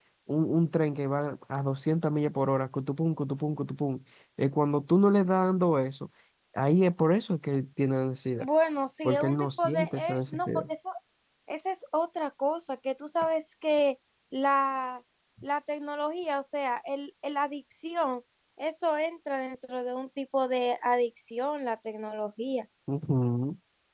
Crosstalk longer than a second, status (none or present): present